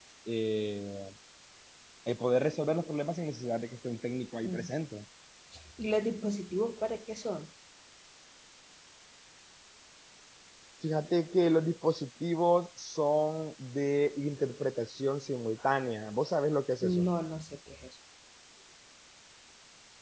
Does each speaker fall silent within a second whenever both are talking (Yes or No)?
Yes